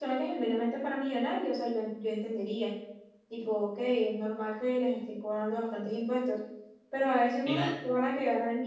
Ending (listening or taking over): listening